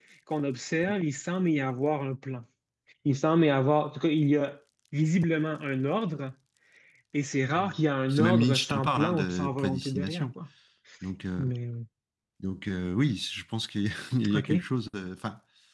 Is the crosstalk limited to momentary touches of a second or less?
No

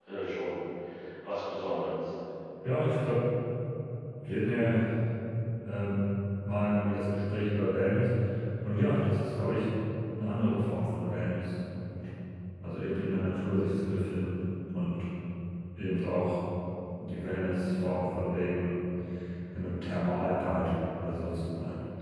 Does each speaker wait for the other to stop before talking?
Yes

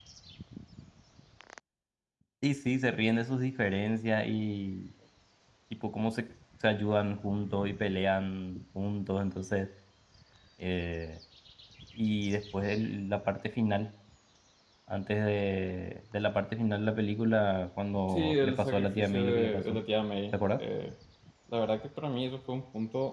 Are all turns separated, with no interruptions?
No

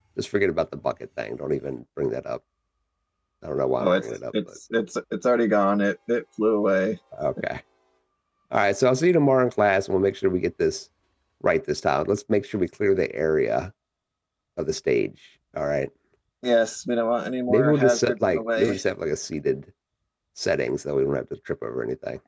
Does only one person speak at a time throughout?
No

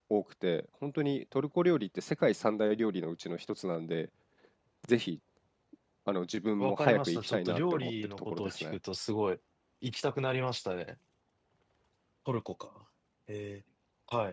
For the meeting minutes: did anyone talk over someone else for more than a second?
Yes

